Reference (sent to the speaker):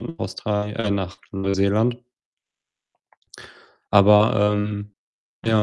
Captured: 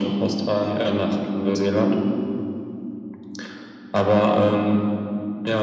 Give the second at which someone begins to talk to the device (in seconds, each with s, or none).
none